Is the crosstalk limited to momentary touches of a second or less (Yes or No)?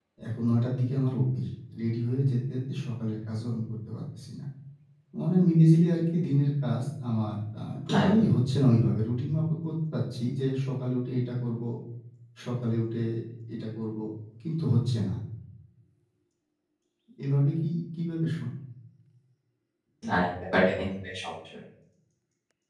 Yes